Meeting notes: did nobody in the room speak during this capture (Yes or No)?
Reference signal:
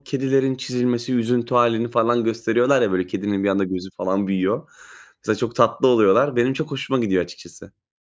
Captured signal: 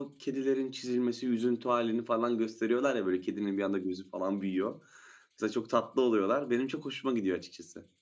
Yes